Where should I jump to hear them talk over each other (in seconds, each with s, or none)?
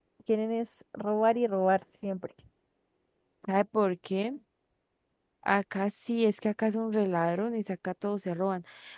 none